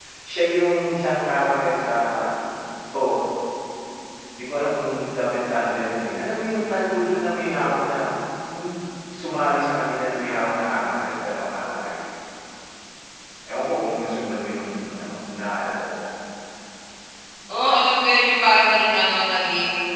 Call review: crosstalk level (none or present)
none